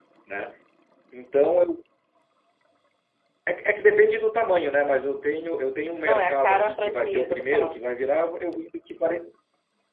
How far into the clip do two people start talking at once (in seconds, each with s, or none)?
6.0 s